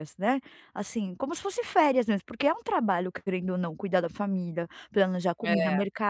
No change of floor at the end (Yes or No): Yes